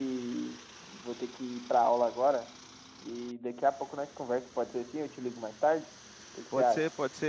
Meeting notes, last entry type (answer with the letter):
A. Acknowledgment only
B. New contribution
B